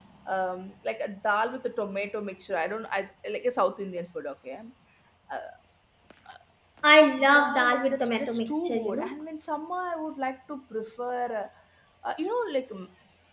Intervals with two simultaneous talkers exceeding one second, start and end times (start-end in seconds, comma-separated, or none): 7.2-9.1